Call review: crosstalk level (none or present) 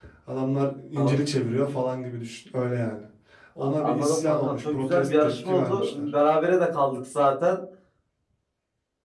present